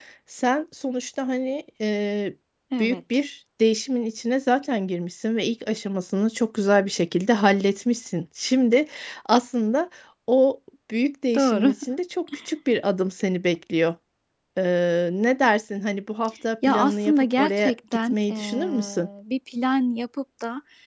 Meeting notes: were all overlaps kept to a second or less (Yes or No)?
No